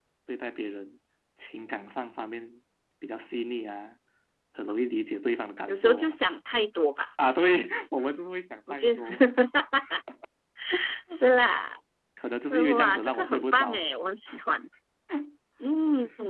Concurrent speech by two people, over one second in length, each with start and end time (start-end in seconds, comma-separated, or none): 12.5-13.8